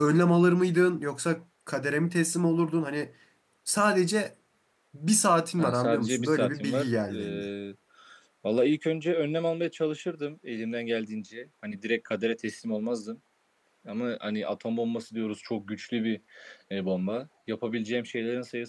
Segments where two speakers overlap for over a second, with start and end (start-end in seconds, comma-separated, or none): 5.6-6.9